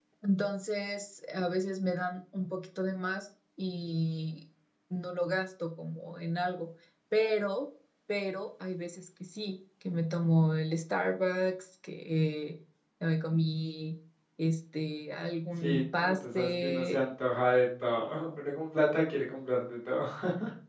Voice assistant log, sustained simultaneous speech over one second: present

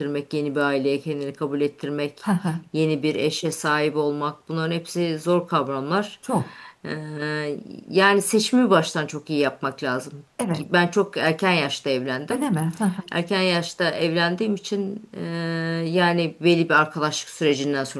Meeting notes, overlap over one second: none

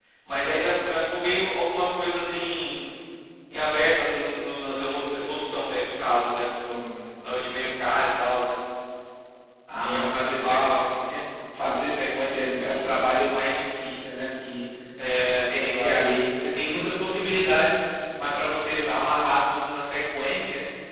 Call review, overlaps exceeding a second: present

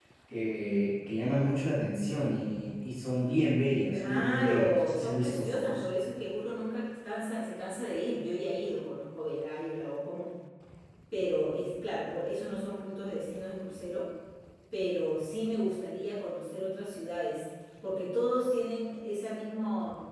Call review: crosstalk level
present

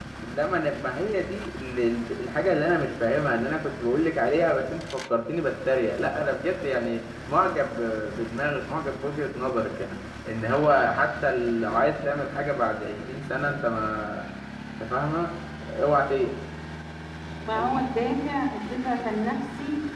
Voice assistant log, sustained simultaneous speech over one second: none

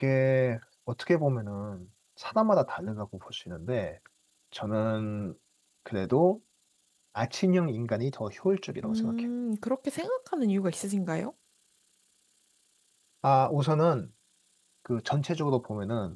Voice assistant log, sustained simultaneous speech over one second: none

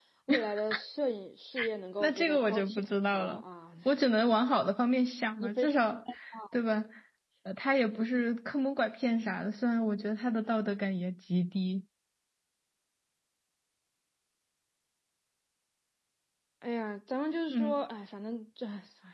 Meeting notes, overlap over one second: present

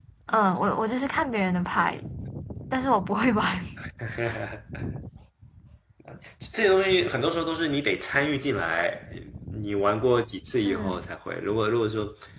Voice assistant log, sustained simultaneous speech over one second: none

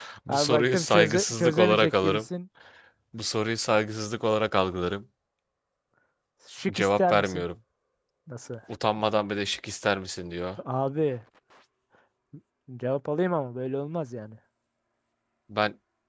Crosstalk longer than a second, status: present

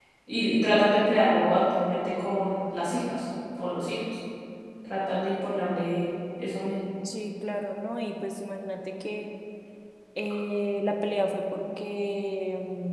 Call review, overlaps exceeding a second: none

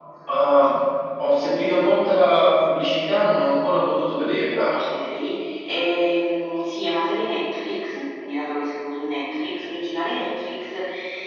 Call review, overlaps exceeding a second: none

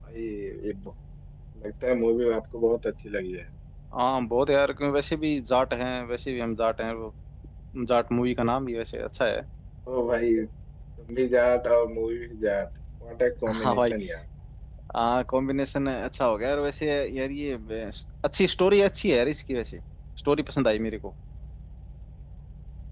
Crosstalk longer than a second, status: none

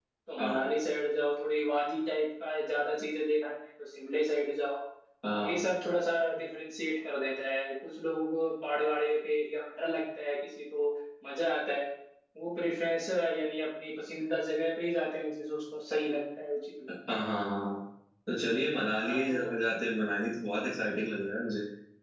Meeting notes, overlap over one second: none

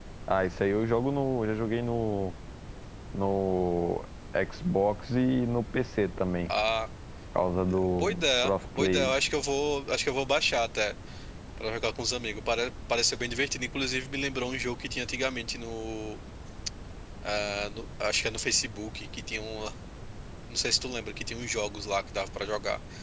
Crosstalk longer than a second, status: present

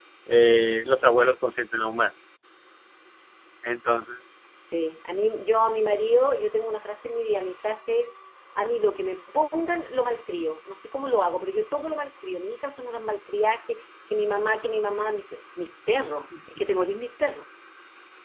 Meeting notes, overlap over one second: none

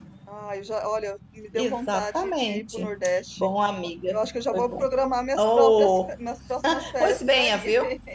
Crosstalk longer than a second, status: present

